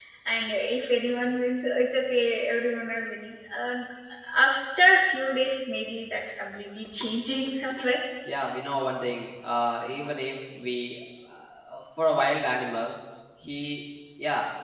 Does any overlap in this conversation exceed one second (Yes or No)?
No